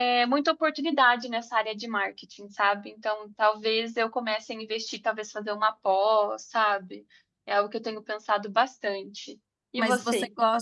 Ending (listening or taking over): taking over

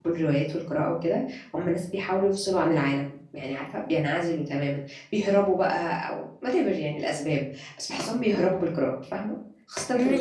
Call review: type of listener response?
taking over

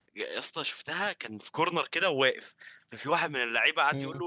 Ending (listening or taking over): listening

